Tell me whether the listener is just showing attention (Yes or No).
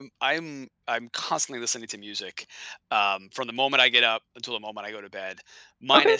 Yes